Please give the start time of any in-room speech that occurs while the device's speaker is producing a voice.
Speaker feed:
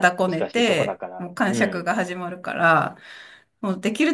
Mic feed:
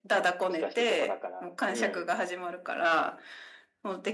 none

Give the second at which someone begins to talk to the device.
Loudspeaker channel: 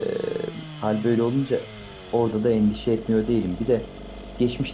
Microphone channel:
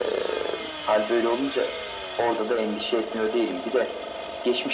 none

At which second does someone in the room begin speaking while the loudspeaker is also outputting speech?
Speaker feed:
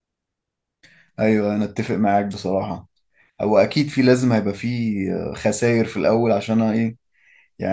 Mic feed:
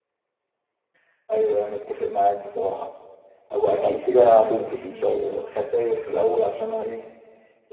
4 s

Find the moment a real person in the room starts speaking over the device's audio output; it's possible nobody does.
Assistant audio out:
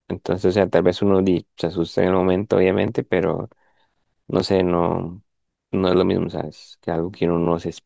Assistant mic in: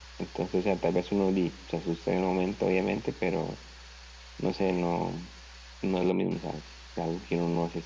none

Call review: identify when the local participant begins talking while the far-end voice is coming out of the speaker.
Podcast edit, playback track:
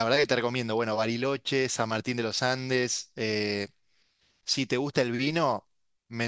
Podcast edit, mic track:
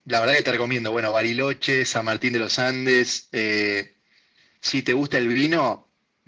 none

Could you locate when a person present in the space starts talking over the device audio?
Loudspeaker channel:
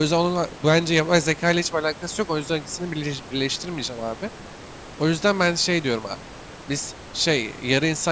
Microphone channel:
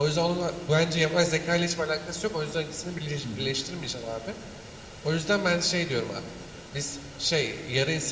3 s

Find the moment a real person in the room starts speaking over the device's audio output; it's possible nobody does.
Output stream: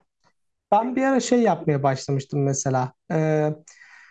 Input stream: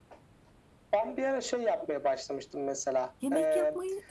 3 s

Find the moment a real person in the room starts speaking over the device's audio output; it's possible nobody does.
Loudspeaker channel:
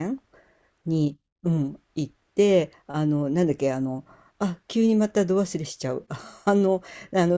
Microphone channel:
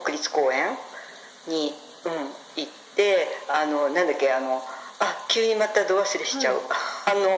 6 s

